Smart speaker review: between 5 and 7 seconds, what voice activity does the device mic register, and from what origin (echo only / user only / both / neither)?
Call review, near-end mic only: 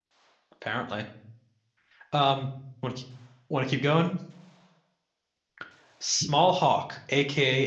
user only